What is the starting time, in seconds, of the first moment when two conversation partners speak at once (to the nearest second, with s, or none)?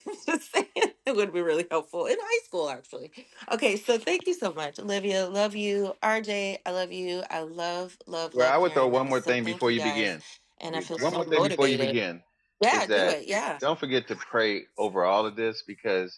8 s